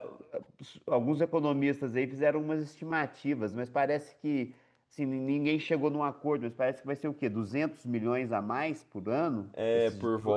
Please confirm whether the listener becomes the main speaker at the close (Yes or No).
Yes